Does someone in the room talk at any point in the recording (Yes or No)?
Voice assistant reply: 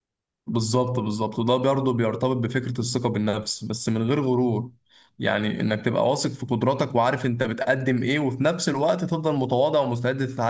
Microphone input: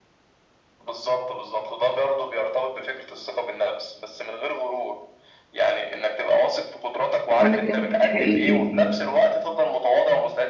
Yes